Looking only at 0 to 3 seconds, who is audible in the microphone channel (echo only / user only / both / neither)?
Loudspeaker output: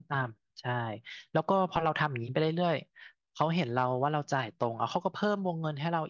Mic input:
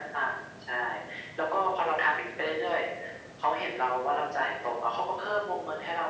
echo only